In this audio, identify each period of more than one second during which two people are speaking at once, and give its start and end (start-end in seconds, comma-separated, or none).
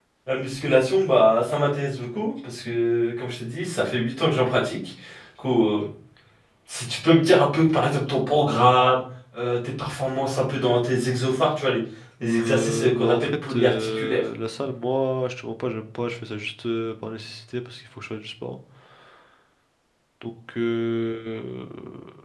12.2-14.2